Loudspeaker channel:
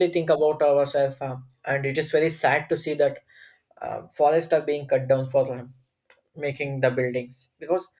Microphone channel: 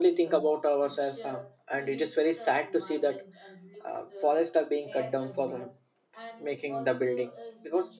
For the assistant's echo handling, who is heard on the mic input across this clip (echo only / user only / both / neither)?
both